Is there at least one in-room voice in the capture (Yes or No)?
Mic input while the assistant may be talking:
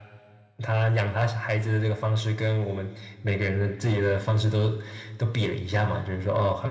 No